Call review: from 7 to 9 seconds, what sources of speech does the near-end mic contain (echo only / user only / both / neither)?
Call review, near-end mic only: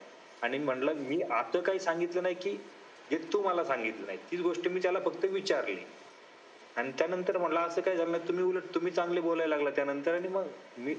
echo only